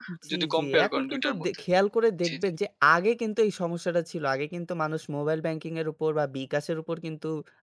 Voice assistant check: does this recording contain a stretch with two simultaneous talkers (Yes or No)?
Yes